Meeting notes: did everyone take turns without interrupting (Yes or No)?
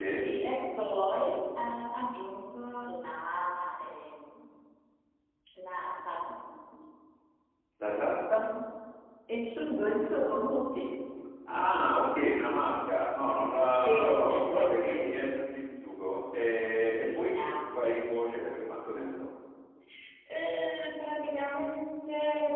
No